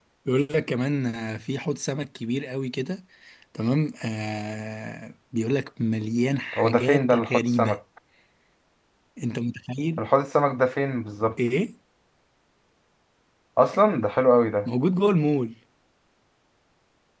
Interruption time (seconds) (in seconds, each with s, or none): 6.5 s